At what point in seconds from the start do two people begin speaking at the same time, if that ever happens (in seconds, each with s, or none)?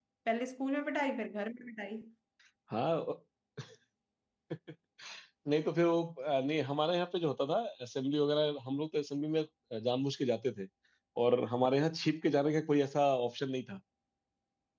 none